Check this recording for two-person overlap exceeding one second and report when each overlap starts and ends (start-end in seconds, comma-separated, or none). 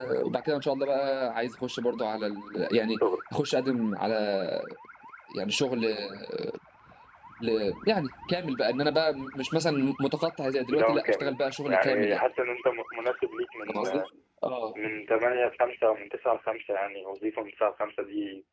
10.7-12.2